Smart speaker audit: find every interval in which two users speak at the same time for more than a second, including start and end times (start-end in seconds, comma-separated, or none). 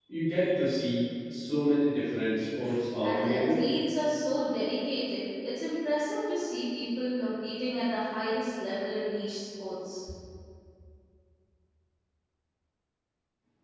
none